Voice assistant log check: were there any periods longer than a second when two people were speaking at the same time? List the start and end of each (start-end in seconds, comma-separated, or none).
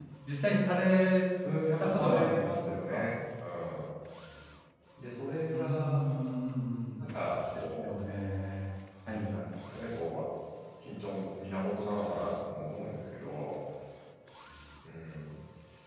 1.8-3.0